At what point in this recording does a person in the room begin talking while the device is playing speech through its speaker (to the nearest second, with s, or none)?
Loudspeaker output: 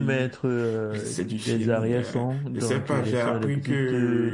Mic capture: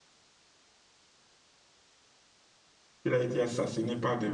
3 s